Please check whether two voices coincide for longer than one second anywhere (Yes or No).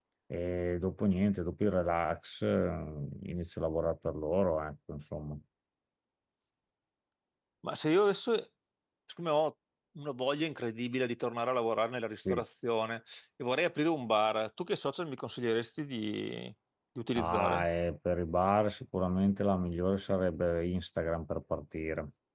No